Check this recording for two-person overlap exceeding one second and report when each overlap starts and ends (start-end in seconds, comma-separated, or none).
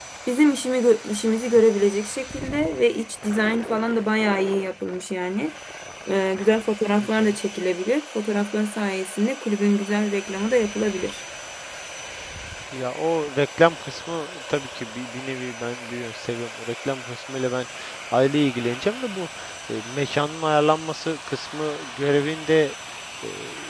none